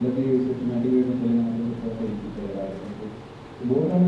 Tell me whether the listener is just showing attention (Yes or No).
Yes